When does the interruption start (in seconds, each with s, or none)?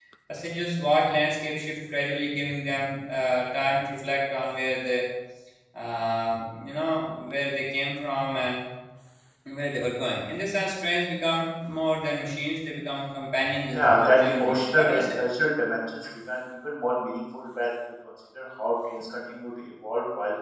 13.7 s